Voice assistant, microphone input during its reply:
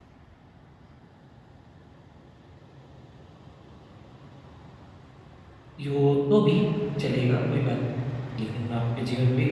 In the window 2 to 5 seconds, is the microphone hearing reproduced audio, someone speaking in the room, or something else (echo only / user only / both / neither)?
neither